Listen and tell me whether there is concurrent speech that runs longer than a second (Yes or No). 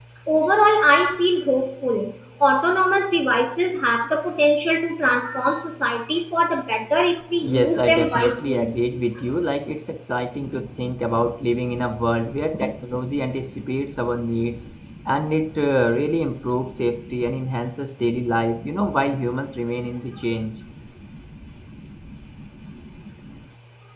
Yes